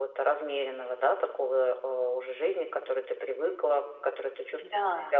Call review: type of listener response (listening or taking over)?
listening